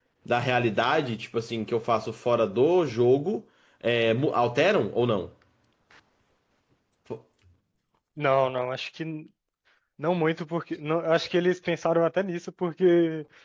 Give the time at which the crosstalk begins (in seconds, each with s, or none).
none